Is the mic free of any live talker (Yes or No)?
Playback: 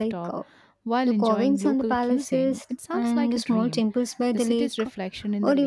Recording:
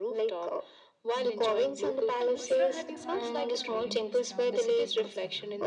No